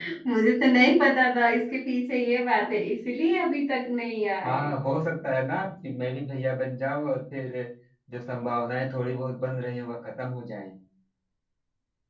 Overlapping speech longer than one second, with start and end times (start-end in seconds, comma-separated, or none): none